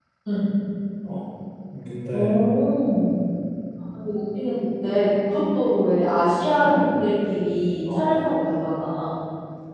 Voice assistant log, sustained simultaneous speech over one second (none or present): none